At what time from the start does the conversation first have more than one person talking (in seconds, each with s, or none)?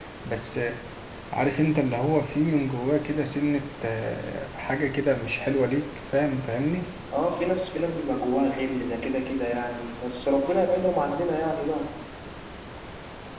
none